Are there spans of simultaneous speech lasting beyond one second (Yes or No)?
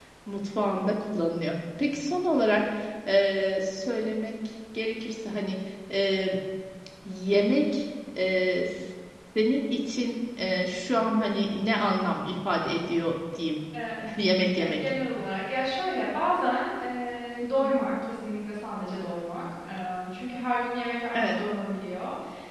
No